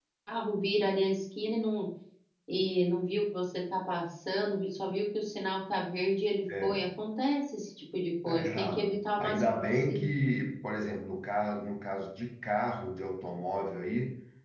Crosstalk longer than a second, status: present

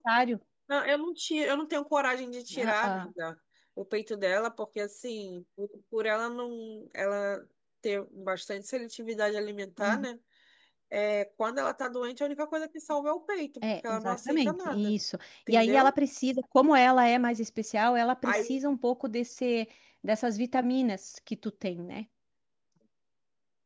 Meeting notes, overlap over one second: present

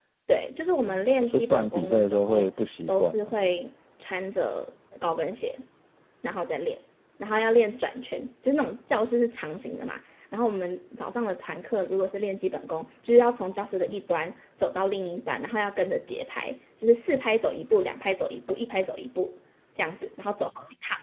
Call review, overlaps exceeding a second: present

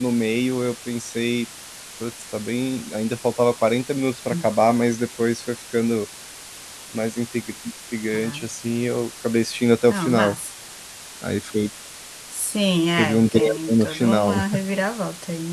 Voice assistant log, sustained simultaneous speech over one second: present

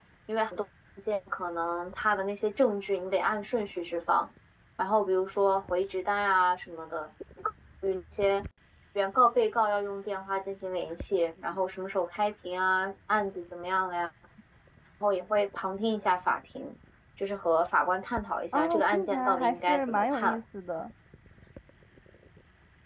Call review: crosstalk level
present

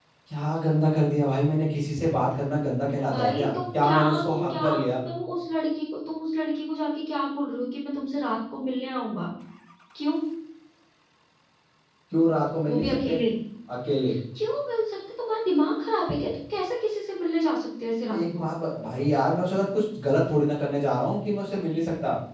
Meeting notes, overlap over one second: present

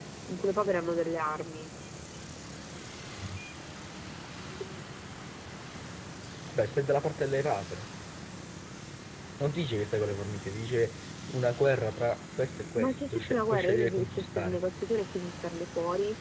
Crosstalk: present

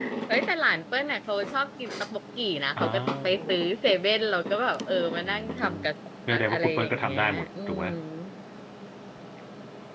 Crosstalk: present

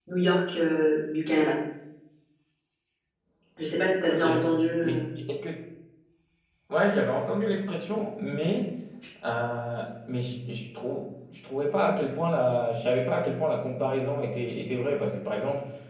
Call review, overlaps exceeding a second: none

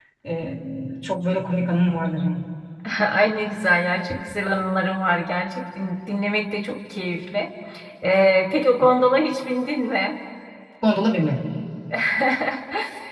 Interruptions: none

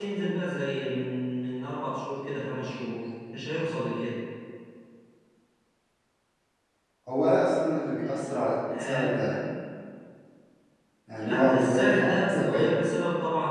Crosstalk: present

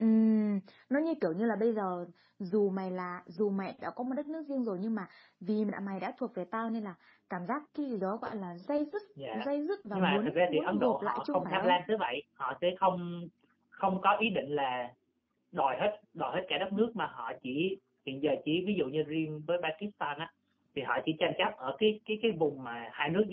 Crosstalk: present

